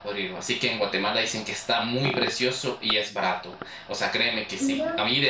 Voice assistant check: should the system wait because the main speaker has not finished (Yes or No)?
Yes